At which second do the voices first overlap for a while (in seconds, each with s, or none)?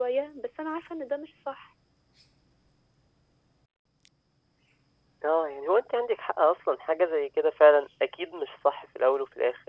none